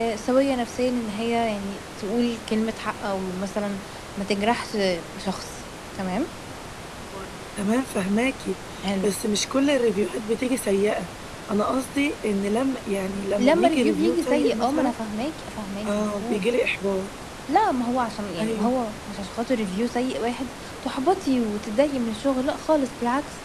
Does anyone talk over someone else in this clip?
Yes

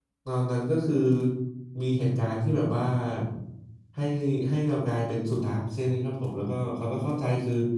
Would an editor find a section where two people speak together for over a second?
No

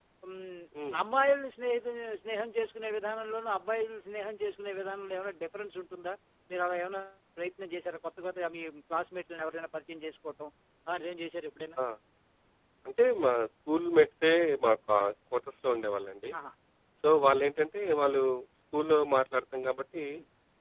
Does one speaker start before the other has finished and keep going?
No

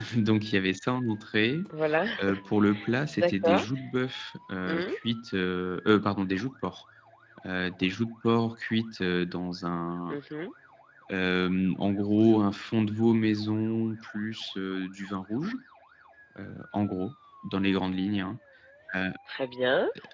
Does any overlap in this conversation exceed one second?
No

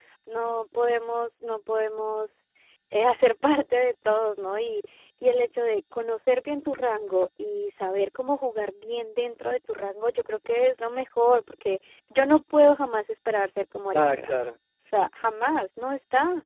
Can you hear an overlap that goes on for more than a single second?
No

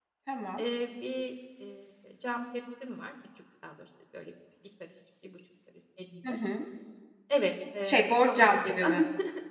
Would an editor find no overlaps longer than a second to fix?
No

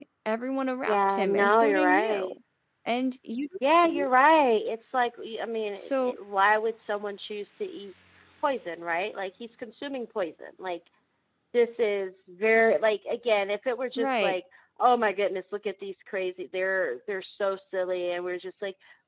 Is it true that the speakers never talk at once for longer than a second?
No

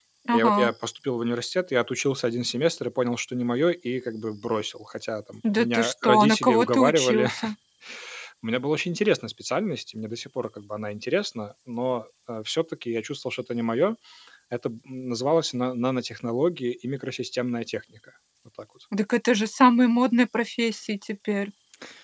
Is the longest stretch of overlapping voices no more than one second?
No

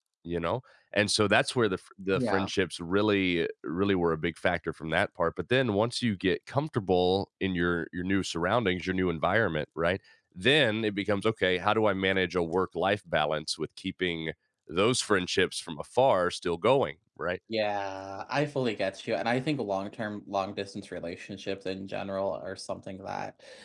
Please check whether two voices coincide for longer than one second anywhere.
No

